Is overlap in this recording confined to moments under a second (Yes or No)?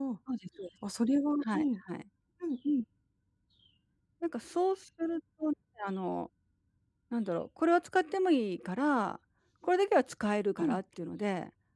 Yes